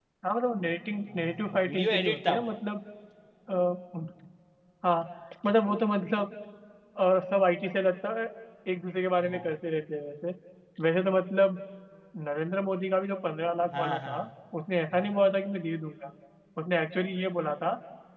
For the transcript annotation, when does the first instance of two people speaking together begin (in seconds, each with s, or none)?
1.1 s